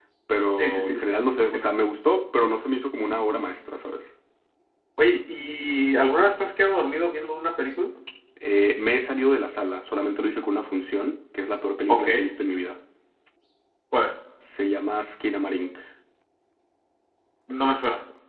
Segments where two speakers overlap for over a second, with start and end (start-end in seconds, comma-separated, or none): none